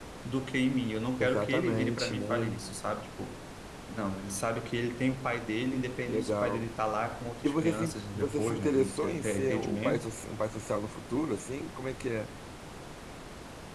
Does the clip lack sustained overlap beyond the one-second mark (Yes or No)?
No